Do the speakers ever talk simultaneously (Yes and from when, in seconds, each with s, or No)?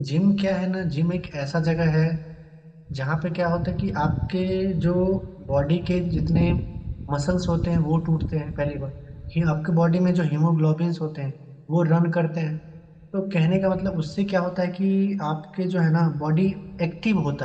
No